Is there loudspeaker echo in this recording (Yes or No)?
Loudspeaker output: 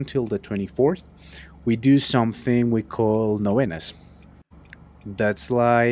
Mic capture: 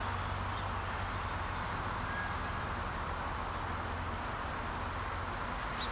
No